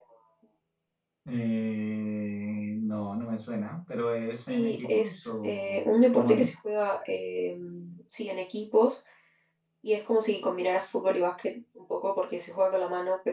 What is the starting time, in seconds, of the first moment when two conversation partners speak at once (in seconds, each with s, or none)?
4.5 s